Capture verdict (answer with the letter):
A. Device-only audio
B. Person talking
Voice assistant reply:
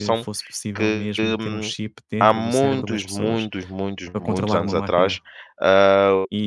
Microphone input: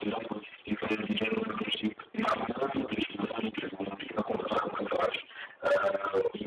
A